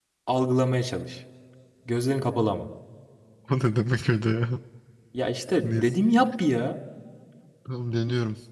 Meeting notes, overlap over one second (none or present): none